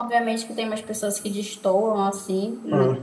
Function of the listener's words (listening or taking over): listening